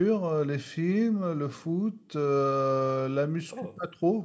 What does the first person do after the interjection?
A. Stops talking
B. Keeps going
B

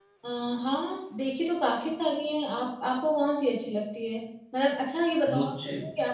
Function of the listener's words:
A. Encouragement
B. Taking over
A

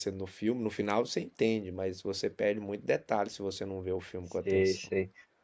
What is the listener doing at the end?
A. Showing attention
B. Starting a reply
B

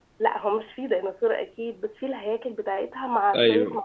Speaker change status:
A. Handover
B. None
B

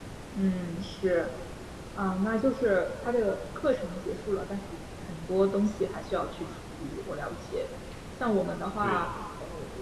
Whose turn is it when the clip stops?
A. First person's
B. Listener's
A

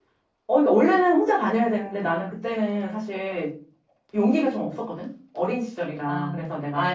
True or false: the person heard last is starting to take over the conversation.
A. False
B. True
B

